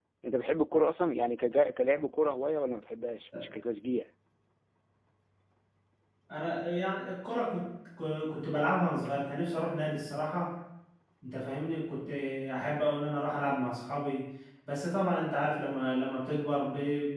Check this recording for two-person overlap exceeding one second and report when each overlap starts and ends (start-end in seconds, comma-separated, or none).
none